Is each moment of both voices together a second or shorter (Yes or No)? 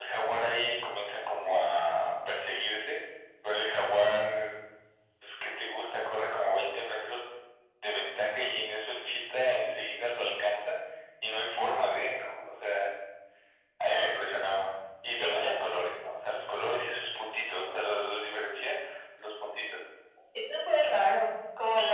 Yes